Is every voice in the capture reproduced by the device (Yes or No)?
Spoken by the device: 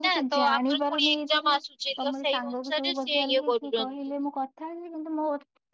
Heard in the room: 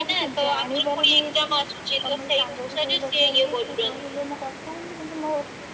Yes